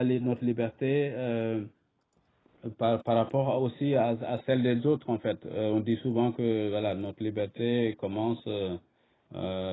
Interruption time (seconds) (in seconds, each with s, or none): none